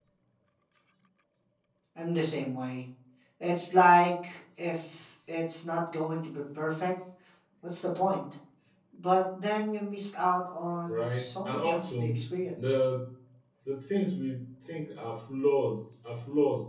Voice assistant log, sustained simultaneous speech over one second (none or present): present